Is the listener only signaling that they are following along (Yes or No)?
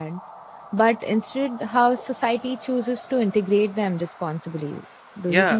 No